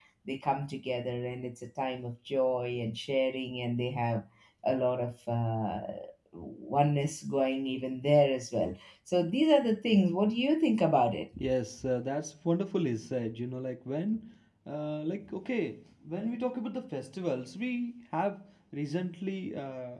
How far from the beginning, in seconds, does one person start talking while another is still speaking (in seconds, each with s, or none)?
none